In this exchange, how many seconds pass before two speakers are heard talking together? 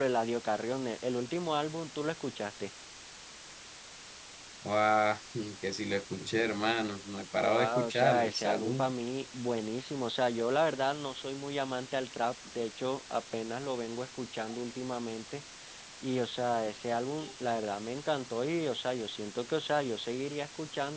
7 s

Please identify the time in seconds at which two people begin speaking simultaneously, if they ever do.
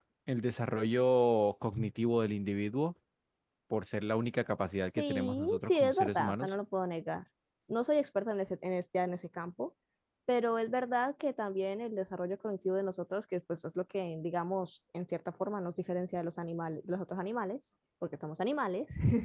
5 s

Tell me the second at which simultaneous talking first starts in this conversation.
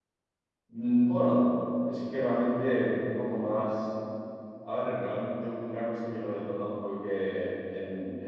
none

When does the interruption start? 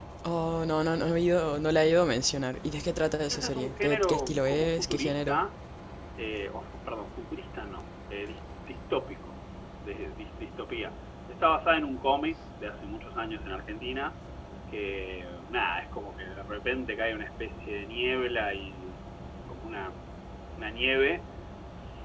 3 s

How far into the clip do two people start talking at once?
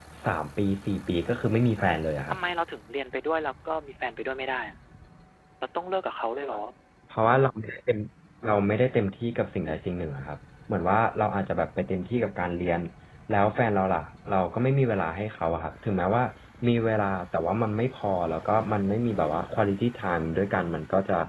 none

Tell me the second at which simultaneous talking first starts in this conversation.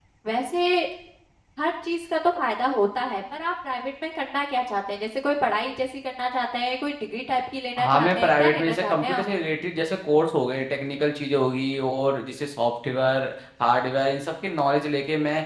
8 s

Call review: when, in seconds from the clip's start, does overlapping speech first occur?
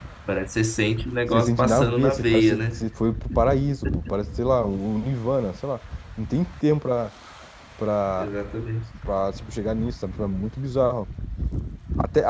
1 s

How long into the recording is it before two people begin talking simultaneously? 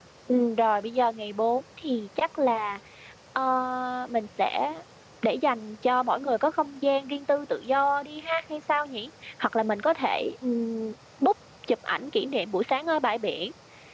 none

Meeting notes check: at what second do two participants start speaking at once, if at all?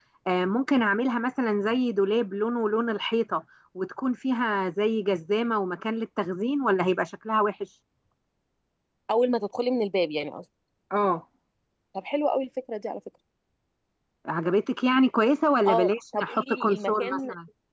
16 s

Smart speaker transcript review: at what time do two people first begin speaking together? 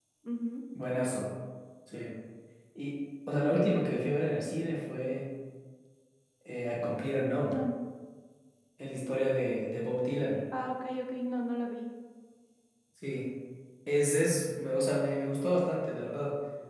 none

